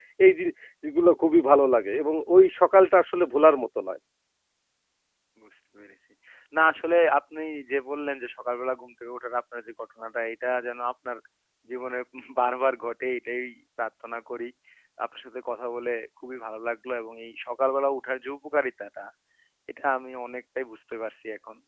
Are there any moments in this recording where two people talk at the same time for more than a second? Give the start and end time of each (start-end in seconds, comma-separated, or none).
none